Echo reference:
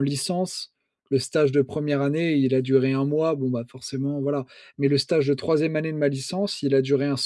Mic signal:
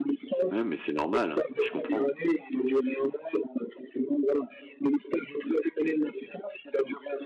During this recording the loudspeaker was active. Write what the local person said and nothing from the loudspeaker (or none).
Ouais, mais c'est normal, hein, je comprends.